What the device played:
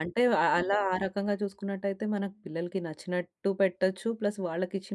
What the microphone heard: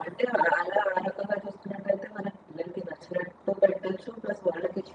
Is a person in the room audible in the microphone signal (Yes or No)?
No